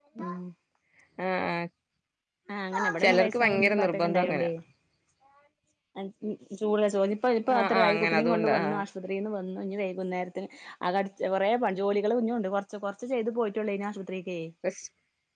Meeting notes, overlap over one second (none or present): present